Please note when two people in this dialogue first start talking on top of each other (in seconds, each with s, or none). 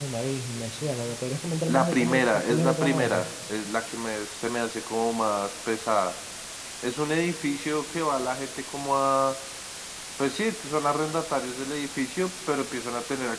1.7 s